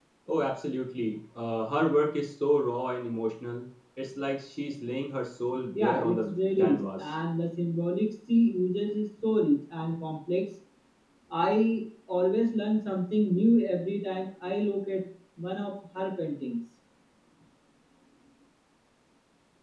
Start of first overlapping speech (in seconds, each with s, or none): 5.7 s